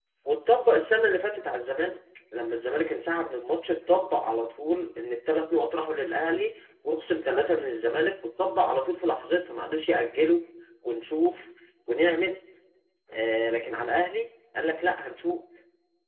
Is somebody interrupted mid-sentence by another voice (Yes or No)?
No